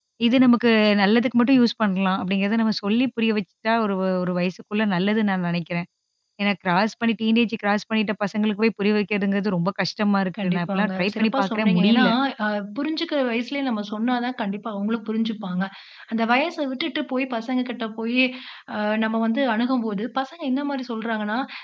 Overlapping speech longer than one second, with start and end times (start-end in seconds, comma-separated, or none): 10.4-12.0